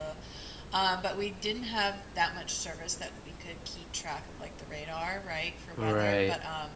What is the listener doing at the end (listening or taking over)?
listening